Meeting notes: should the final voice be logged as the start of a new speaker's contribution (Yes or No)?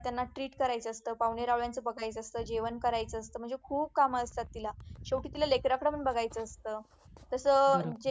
No